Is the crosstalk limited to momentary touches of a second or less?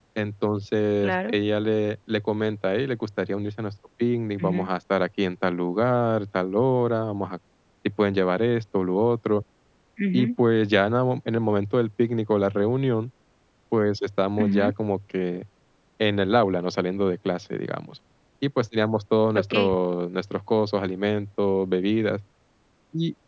Yes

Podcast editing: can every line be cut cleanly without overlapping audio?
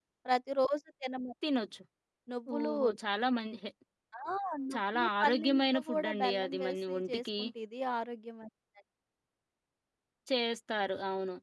No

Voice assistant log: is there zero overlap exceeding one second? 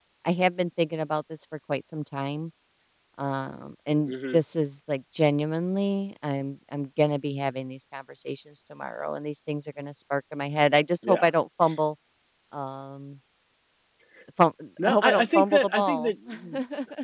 No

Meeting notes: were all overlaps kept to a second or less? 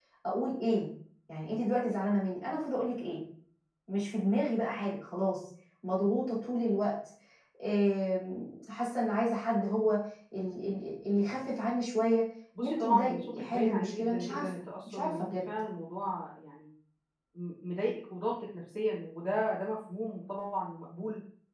No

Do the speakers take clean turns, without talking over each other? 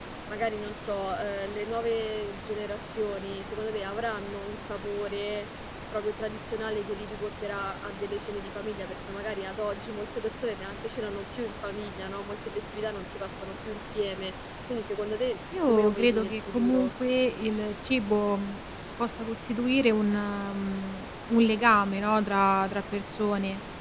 No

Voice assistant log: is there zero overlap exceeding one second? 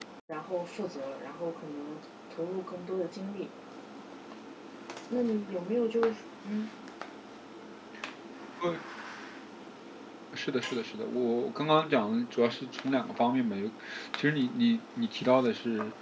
Yes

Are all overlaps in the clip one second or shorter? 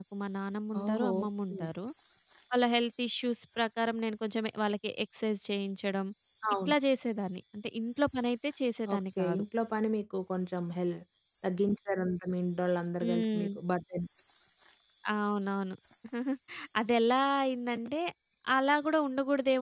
Yes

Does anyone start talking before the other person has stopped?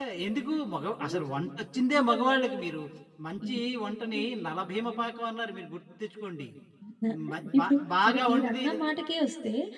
Yes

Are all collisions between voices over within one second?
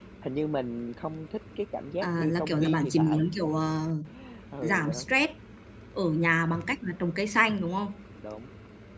No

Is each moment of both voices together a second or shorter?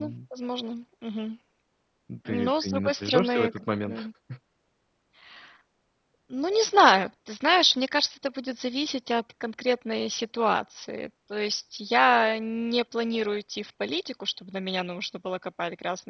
No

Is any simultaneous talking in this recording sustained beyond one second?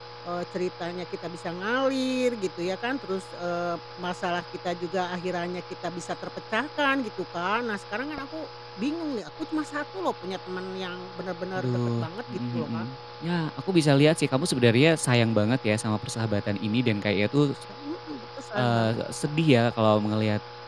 Yes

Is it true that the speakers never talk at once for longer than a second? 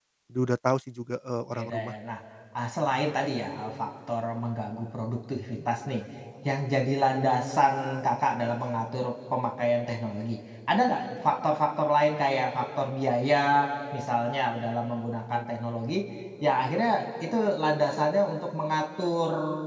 Yes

